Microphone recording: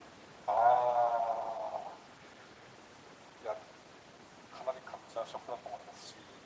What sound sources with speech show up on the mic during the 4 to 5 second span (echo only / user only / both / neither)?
echo only